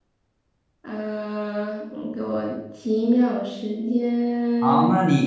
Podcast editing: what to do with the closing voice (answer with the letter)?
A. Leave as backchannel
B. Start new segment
B